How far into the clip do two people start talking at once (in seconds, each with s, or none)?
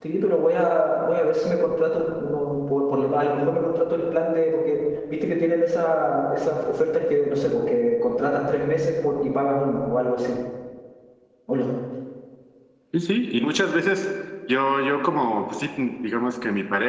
none